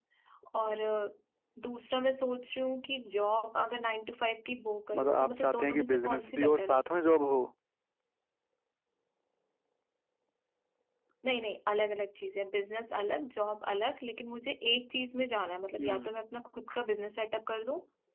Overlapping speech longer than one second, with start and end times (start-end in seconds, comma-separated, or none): 5.0-6.8